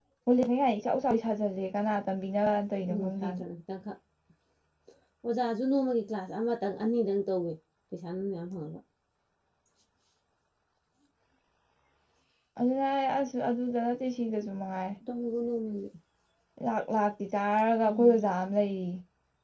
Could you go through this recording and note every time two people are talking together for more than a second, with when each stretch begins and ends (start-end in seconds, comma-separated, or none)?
none